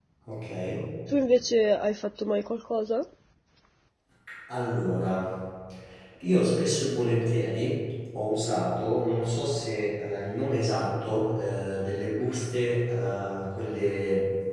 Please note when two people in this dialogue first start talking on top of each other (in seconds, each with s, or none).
none